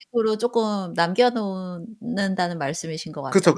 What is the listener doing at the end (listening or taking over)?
taking over